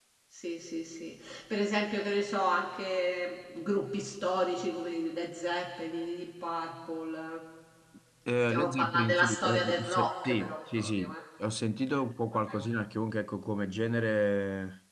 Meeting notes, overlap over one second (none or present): present